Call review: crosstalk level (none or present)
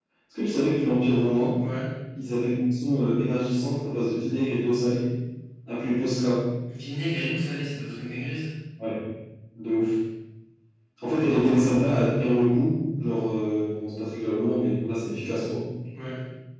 none